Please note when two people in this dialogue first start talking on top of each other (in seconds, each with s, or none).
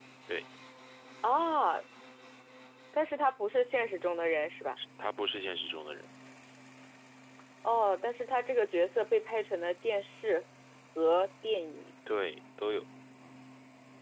none